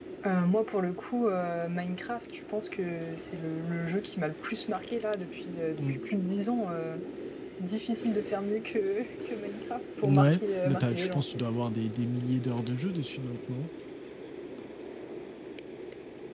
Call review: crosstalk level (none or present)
present